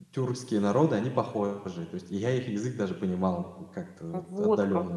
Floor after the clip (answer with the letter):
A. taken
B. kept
A